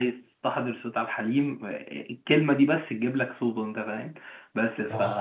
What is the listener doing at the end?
listening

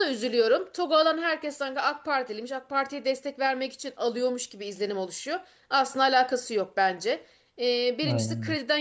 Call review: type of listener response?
listening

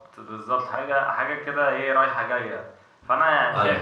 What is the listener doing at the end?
listening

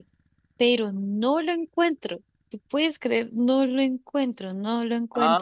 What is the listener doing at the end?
taking over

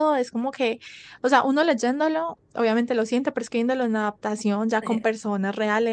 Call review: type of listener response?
listening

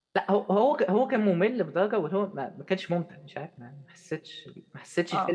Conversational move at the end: listening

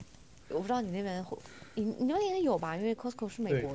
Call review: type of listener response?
taking over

